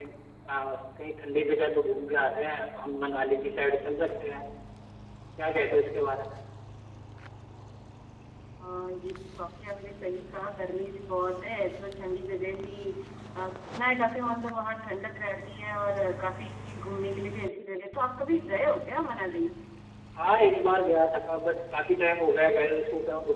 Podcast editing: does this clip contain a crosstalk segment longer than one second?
No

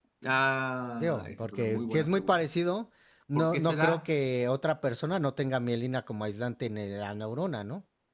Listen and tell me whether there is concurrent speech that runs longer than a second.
Yes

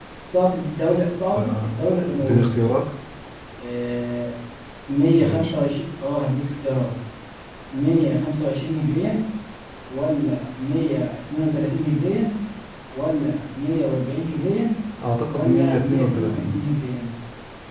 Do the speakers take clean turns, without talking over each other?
No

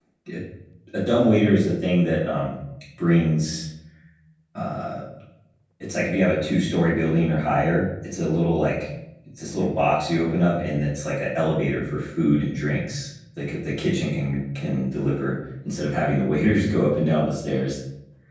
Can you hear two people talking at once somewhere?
No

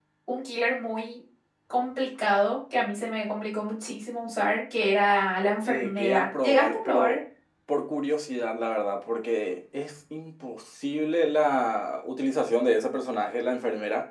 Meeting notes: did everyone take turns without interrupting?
No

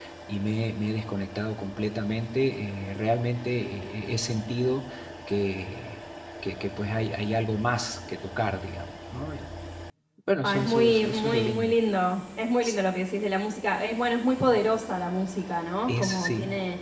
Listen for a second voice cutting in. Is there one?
Yes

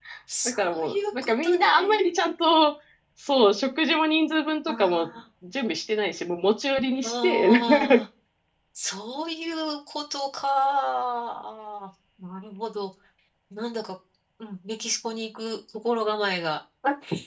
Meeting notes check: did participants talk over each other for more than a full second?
Yes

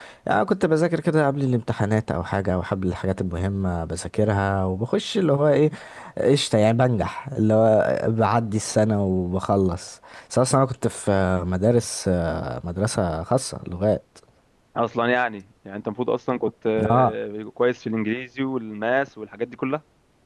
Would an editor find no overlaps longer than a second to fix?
Yes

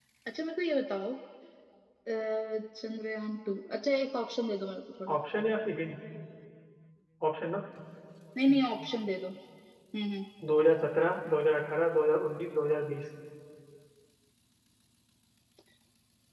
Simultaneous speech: No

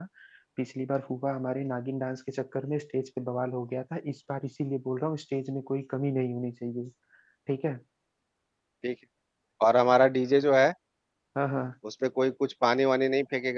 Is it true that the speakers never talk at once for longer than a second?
Yes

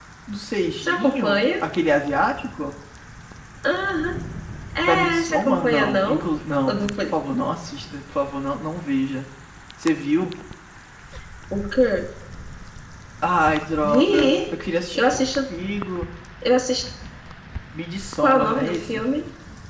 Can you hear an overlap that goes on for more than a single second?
Yes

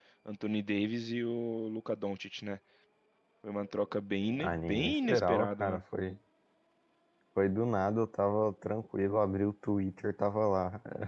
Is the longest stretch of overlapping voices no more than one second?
No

